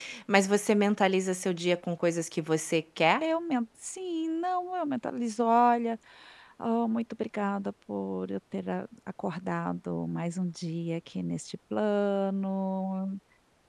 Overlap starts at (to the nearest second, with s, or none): none